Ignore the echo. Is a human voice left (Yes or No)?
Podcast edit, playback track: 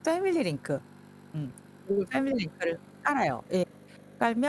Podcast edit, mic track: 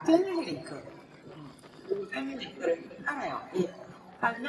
No